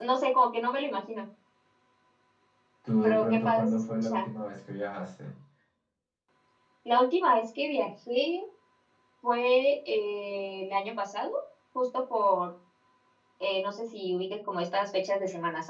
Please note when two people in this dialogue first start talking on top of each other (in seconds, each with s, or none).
3.0 s